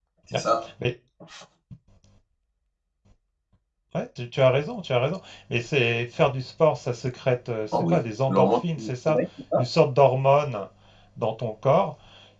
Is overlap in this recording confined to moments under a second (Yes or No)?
No